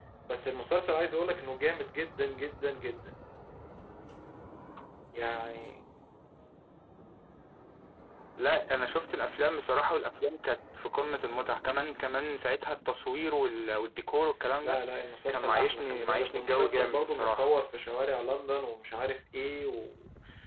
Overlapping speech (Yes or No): Yes